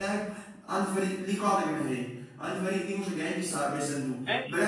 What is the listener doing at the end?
taking over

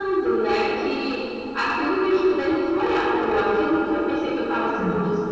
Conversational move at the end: listening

